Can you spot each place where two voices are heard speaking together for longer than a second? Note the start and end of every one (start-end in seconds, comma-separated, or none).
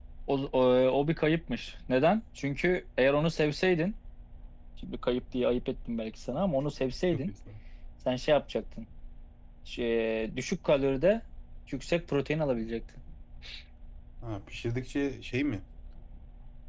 none